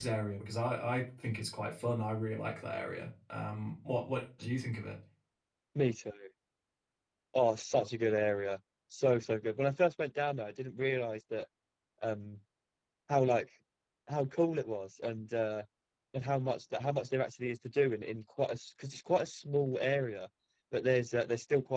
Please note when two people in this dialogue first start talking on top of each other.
none

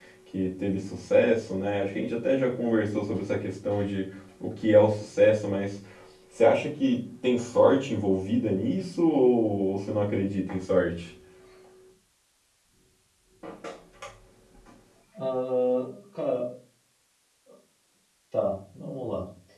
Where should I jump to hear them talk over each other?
none

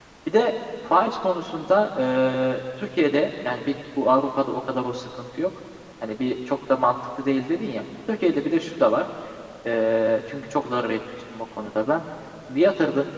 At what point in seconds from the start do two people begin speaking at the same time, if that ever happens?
none

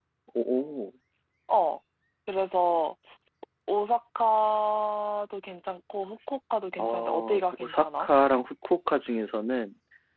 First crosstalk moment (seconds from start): 6.8 s

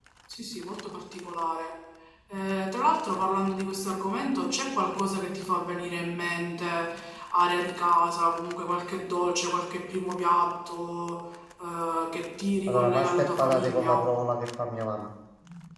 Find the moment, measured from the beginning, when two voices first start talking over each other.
12.7 s

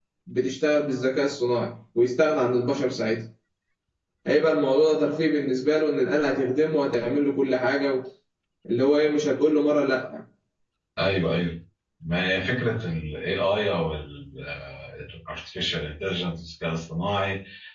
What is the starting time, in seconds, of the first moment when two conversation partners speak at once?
none

